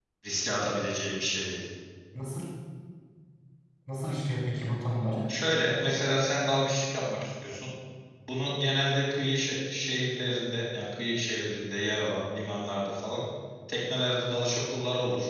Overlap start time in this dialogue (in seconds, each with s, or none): none